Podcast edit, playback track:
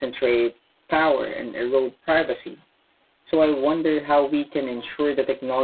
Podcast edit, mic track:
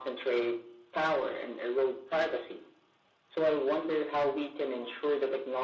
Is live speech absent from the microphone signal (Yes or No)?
Yes